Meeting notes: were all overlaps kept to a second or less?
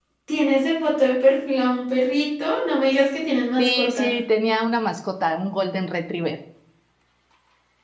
Yes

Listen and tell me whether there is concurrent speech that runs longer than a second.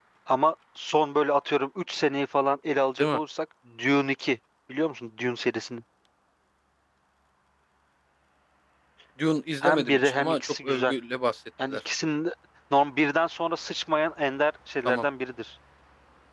Yes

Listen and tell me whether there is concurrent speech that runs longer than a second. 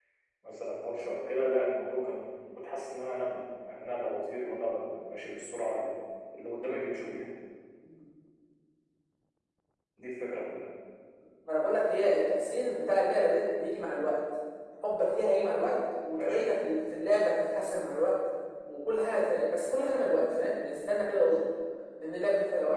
No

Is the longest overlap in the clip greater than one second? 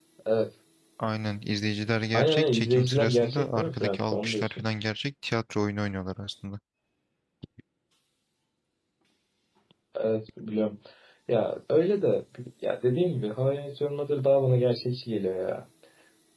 Yes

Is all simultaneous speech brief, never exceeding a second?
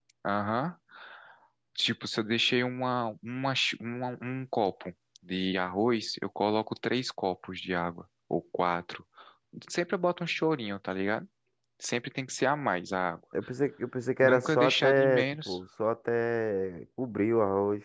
No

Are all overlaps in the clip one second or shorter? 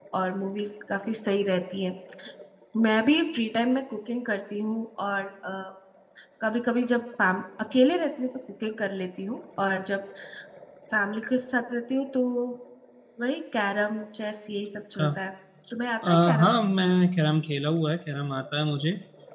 Yes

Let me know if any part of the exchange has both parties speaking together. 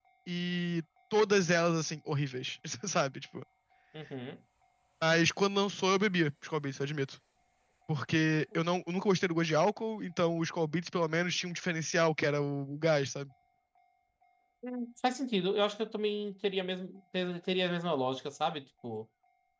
No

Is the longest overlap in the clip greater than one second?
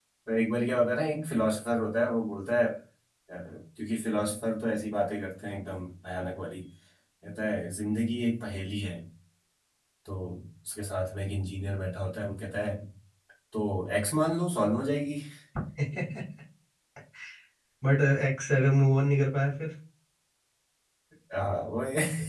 No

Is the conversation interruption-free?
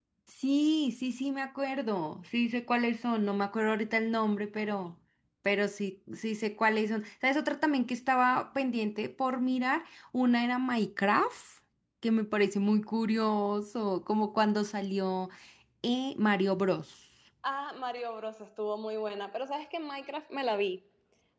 Yes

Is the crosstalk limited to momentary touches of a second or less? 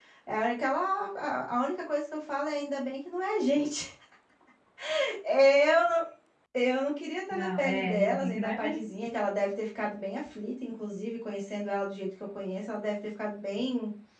No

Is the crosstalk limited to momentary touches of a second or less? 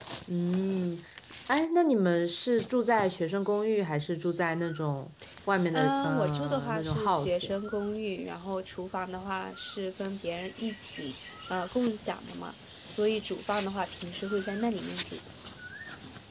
No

